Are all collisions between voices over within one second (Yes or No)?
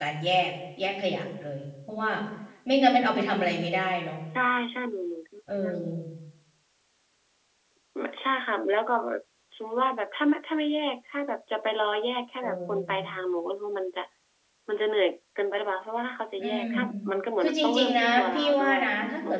No